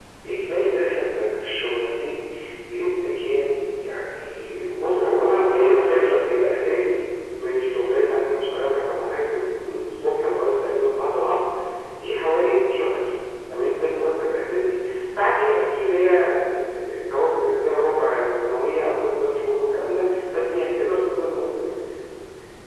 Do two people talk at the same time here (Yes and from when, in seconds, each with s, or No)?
Yes, from 4.8 s